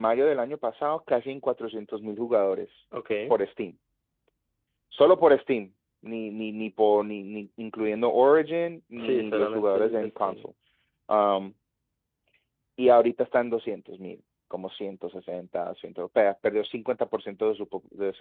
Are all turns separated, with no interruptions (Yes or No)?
No